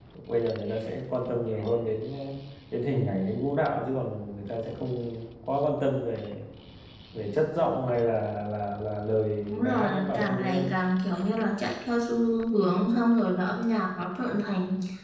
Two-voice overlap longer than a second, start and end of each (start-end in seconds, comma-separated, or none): 9.5-10.7